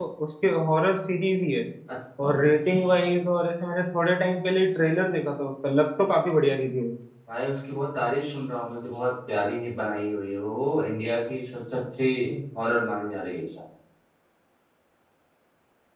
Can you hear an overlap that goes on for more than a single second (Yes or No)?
No